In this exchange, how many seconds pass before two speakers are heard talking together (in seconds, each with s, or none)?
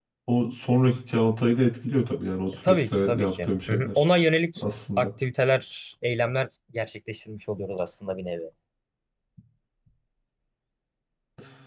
2.5 s